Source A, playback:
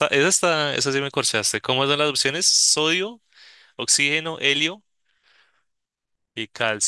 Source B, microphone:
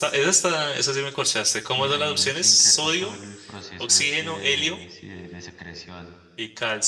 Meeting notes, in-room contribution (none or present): present